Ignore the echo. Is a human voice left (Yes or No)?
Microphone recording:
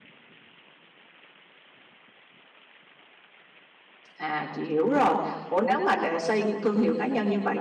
Yes